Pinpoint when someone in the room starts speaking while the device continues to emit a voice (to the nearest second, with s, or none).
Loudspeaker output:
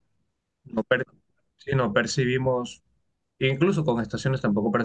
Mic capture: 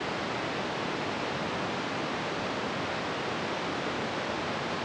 none